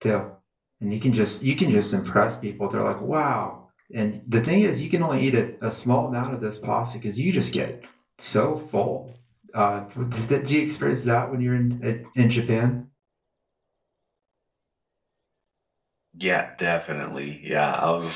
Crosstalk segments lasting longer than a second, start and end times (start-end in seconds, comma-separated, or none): none